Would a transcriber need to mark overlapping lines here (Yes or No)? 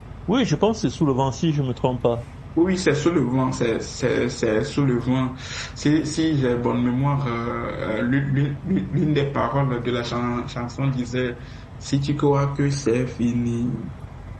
No